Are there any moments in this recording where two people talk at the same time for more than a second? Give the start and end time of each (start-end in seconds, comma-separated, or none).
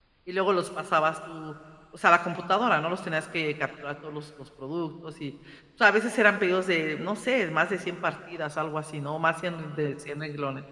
none